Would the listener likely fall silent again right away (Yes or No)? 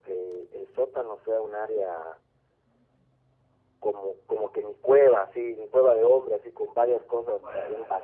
Yes